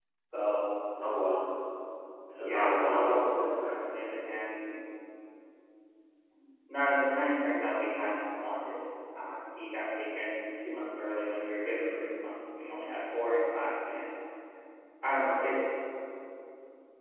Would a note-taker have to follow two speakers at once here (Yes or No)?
Yes